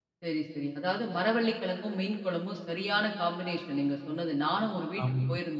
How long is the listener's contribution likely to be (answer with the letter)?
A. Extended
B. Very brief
B